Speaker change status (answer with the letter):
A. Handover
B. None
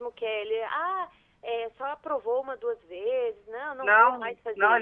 A